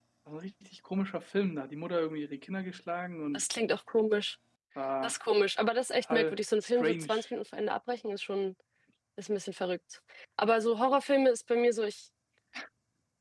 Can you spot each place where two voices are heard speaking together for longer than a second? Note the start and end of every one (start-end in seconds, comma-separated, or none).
6.0-7.2